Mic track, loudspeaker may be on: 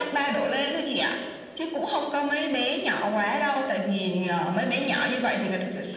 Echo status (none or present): present